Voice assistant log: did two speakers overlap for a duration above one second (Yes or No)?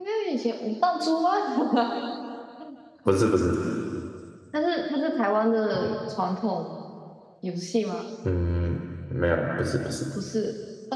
No